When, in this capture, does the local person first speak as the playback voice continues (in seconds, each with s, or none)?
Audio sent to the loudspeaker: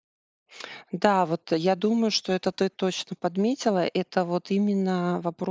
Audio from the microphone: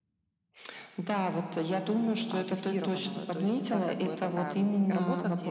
2.3 s